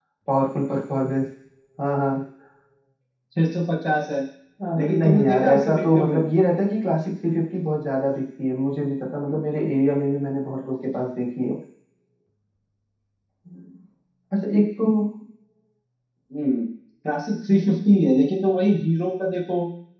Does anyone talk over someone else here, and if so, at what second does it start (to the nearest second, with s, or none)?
5 s